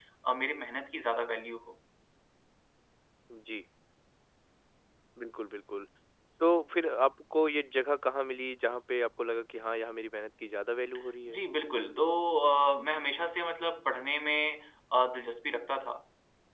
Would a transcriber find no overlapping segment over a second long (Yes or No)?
Yes